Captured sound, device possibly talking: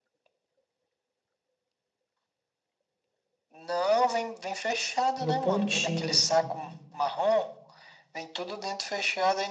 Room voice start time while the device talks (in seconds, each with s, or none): 5.2 s